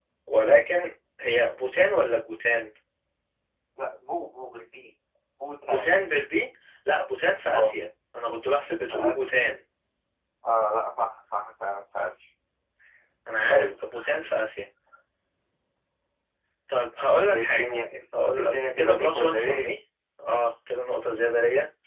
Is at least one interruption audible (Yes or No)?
Yes